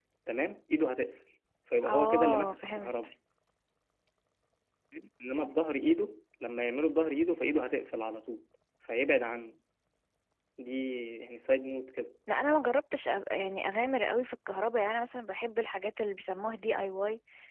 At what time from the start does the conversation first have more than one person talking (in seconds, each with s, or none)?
1.8 s